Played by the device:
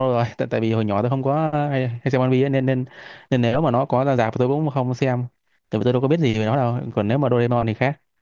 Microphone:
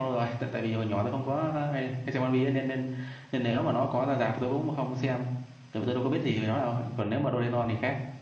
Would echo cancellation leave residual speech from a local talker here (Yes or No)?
No